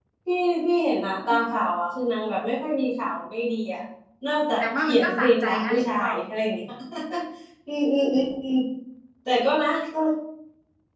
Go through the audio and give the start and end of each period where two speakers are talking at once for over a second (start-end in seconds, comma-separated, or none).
4.6-6.2